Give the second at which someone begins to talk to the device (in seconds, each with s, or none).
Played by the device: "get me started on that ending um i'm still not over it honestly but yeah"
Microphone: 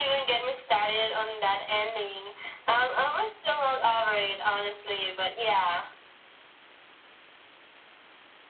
none